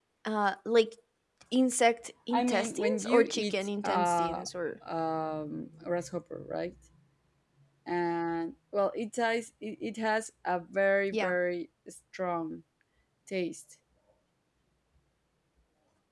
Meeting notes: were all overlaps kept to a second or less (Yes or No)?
No